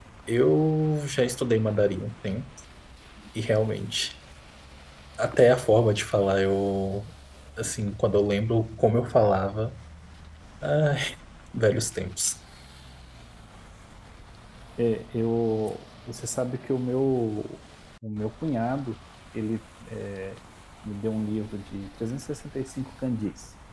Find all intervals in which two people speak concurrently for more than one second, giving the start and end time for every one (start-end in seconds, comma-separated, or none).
none